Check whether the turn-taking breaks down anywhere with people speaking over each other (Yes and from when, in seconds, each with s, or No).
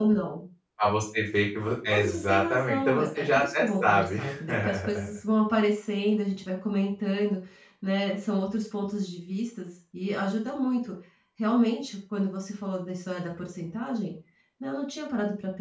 Yes, from 1.9 s